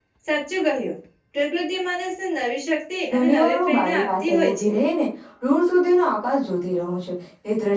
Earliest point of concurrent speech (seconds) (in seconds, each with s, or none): 3.1 s